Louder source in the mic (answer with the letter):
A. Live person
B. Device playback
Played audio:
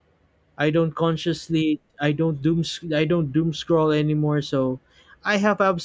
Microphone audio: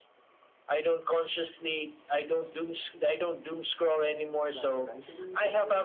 B